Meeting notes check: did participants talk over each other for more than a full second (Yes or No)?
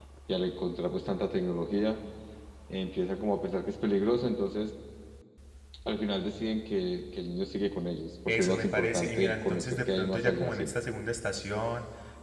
Yes